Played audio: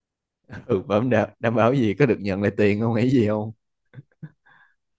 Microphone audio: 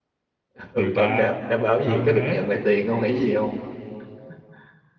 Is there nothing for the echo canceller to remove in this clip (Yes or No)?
No